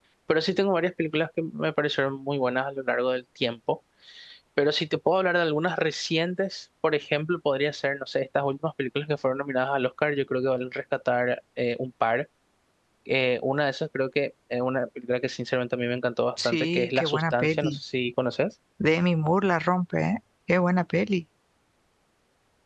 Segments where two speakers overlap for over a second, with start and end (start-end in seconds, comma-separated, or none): 16.4-17.8